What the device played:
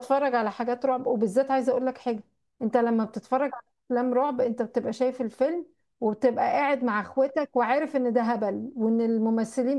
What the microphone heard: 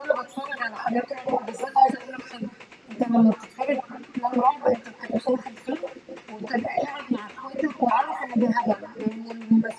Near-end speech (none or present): present